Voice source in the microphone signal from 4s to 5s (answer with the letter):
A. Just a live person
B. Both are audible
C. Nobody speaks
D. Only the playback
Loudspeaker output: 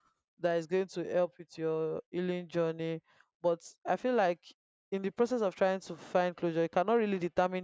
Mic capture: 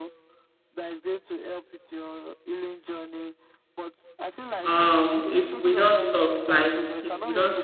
B